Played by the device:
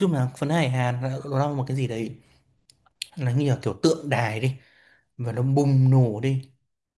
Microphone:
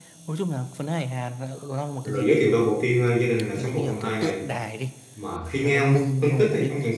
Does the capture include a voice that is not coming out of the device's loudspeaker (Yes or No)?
Yes